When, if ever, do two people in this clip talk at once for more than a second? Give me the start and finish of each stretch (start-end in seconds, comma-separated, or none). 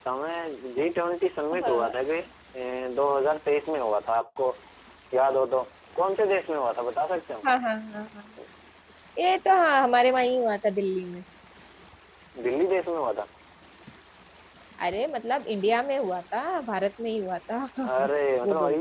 none